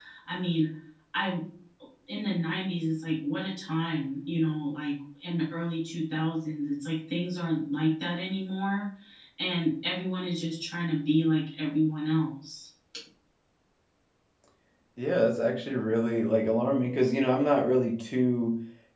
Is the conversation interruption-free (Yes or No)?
Yes